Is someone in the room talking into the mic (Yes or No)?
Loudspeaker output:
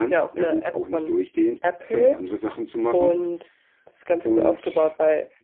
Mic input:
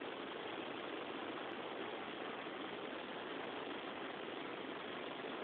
No